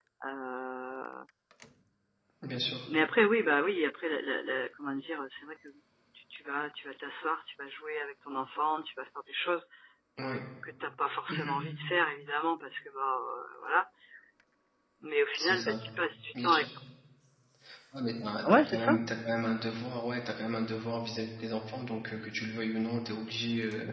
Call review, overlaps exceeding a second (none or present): none